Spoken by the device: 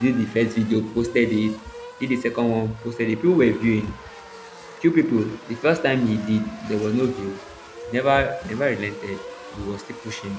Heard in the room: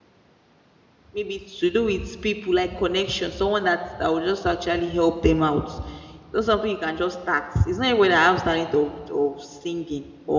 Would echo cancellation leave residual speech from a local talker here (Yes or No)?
Yes